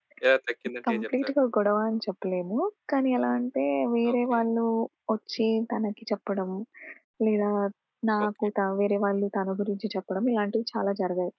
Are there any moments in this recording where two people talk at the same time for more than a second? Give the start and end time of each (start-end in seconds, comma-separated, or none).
none